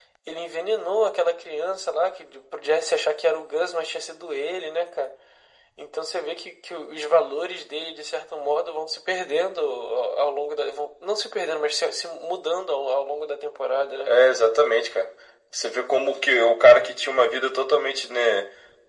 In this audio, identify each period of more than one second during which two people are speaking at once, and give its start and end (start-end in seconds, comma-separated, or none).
none